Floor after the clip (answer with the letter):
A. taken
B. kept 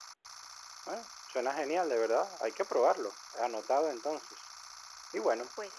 B